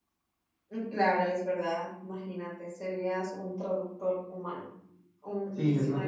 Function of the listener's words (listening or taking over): taking over